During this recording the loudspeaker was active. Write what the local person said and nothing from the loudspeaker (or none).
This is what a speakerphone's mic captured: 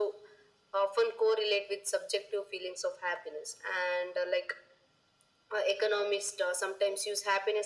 none